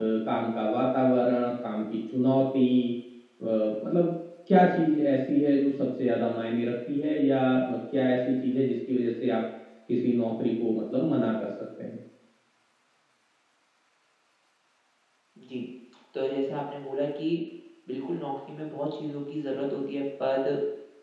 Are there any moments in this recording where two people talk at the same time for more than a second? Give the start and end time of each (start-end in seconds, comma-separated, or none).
none